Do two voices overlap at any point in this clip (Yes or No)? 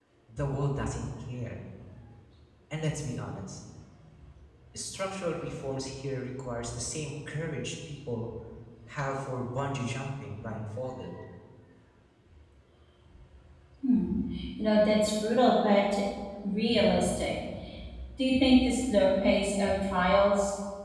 No